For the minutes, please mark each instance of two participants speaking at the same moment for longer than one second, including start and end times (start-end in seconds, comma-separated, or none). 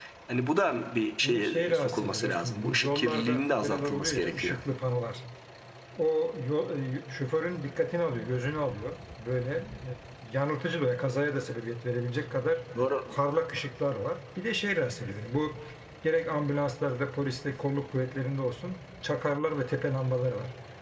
1.2-4.6